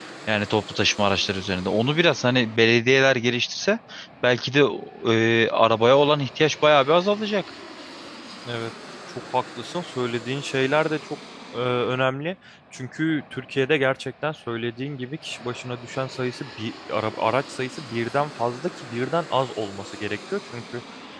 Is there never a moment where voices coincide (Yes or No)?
Yes